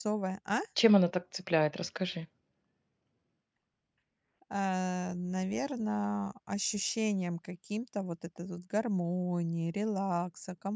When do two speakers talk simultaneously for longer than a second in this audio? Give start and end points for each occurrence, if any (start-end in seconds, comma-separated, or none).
none